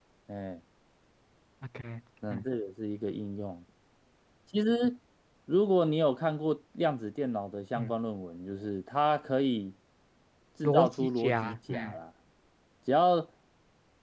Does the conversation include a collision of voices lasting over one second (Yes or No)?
Yes